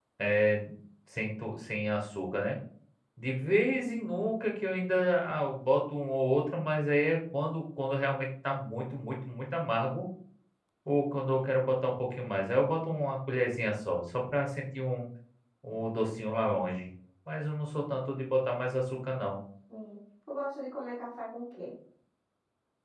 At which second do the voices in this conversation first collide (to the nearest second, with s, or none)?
none